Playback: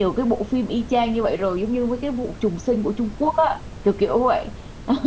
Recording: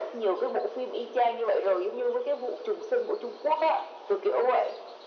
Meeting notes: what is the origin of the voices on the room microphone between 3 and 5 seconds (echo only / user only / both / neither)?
echo only